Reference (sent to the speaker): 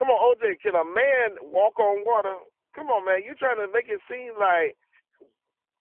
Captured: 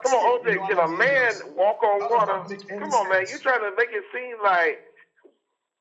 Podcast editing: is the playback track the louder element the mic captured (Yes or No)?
Yes